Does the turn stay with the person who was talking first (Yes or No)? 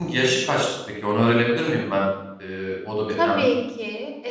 No